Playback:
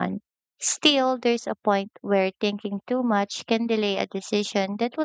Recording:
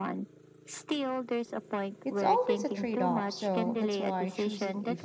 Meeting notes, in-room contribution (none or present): present